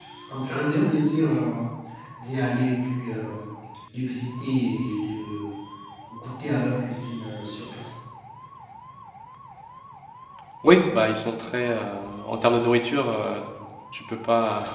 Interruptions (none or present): none